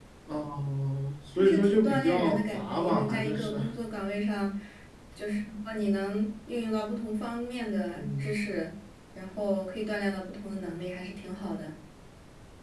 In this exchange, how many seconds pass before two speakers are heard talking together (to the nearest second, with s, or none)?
1 s